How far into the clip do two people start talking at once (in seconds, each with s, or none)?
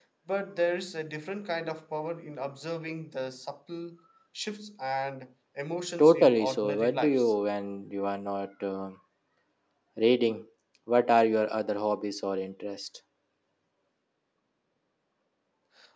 6.0 s